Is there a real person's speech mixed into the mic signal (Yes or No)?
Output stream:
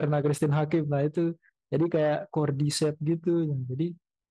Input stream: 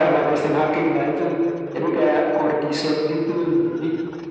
No